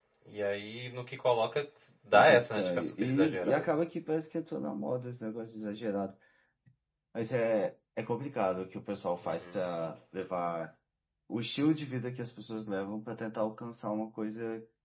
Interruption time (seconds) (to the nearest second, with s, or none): 2 s